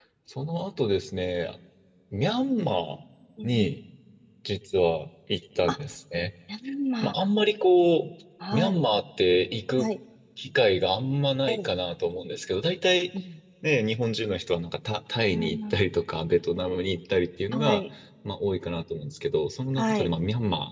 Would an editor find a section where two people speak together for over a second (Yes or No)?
No